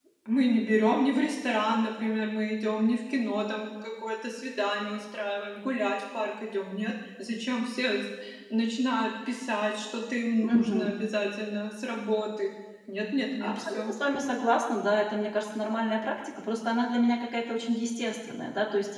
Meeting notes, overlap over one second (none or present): none